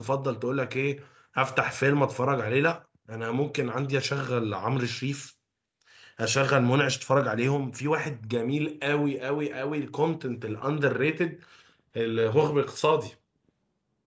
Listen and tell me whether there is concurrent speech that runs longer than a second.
No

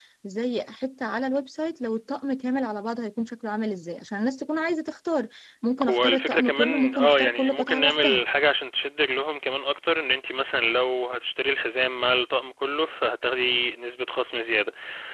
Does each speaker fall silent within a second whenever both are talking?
No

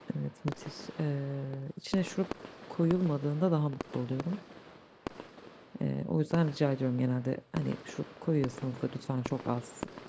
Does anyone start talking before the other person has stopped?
No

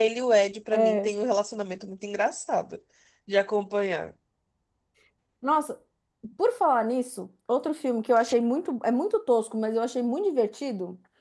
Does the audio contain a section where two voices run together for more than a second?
No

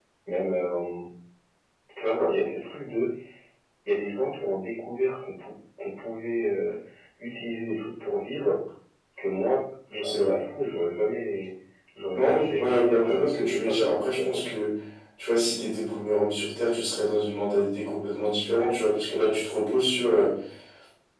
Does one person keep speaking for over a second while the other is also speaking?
Yes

